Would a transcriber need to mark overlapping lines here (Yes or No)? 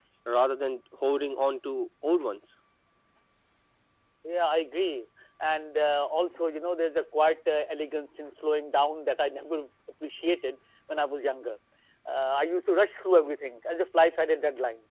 No